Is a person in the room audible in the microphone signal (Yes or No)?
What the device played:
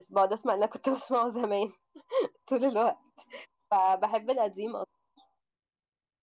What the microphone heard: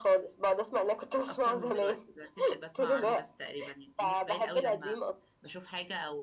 Yes